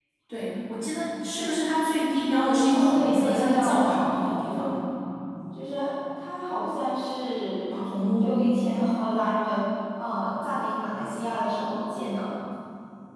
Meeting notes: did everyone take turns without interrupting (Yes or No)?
No